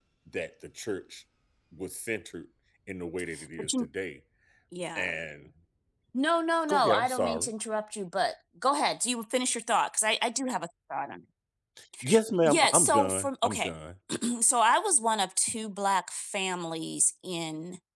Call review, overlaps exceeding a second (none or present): present